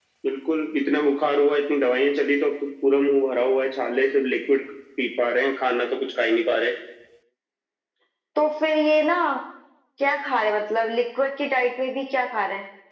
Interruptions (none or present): none